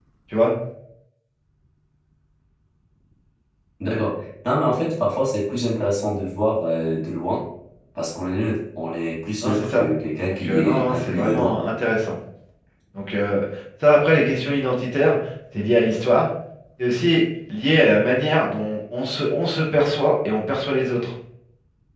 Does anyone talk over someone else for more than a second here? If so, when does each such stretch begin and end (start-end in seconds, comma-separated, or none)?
10.3-11.6